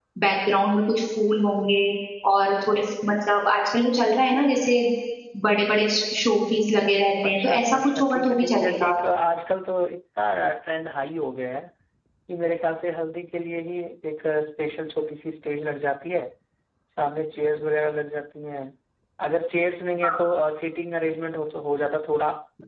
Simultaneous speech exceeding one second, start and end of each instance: 7.2-8.9

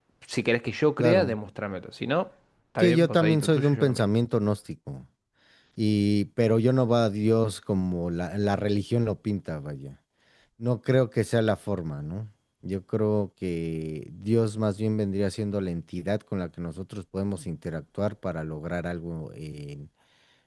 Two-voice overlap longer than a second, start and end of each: 2.8-4.0

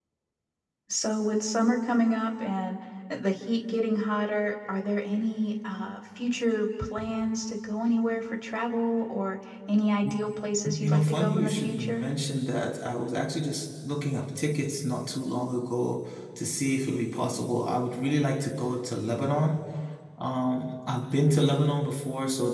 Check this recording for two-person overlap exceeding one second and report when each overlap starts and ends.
10.8-12.0

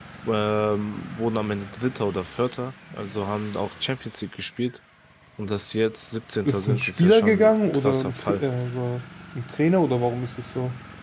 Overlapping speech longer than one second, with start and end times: 6.5-8.4

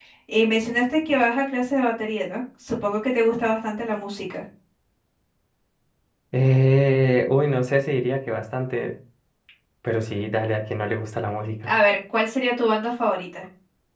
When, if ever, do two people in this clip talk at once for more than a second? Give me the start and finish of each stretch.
none

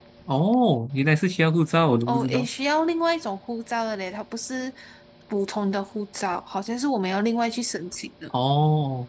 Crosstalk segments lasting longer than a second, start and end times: none

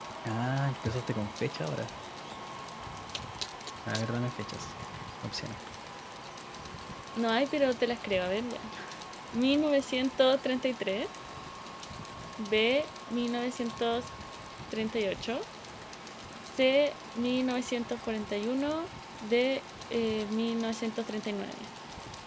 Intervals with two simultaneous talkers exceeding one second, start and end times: none

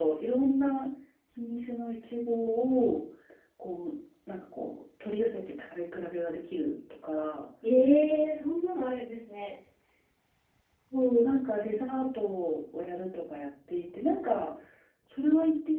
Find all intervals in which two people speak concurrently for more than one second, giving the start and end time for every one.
none

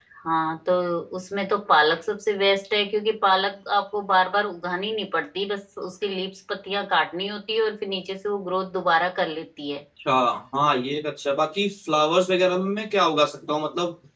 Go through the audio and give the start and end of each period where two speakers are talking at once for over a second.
none

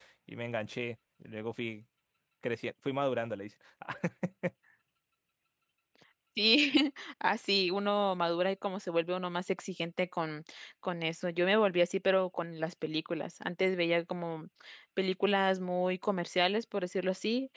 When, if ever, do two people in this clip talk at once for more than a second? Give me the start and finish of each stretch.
none

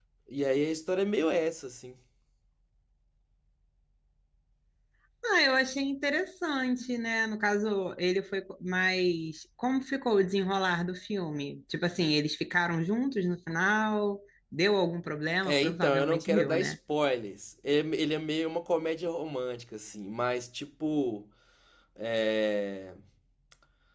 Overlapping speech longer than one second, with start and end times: 15.4-16.8

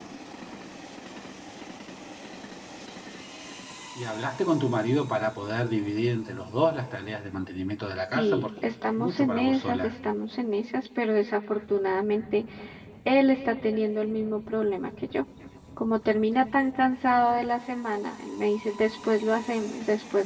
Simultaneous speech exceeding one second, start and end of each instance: 8.0-9.9

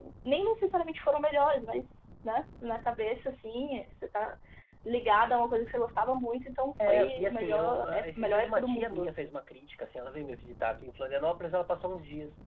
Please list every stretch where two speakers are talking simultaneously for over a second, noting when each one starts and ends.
6.9-9.1

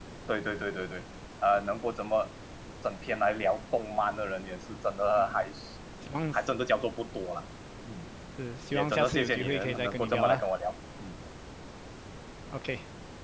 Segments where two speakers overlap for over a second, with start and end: 8.7-10.4

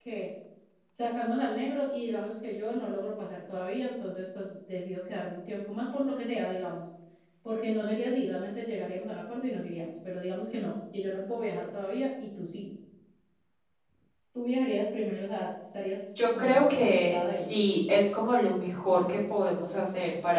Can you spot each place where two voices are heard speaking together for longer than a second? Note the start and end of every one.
16.1-17.6

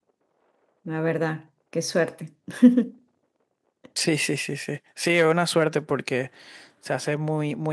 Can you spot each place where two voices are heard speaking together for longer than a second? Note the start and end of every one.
none

